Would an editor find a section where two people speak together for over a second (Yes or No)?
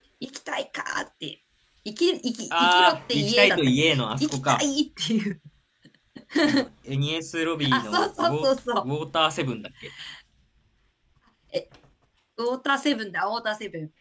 Yes